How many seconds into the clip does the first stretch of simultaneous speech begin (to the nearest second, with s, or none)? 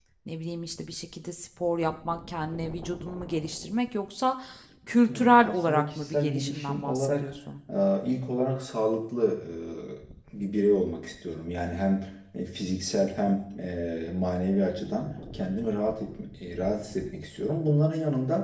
5 s